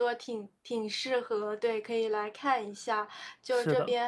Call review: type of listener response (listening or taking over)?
listening